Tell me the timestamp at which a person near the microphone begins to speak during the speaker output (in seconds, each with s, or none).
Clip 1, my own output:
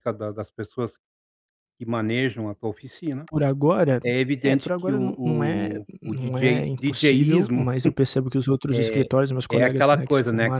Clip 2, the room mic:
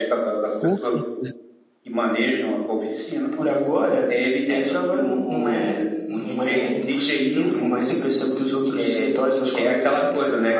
0.6 s